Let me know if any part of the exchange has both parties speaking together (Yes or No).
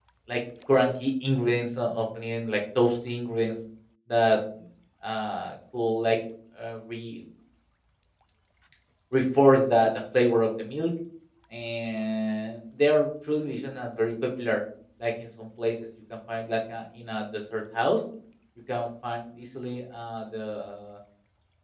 No